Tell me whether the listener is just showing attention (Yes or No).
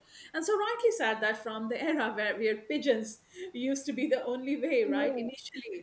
Yes